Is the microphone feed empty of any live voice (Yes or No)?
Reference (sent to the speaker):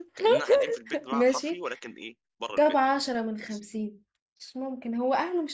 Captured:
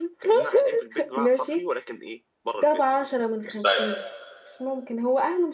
No